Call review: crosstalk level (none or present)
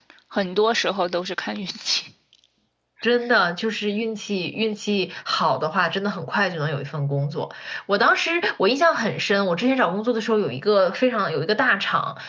none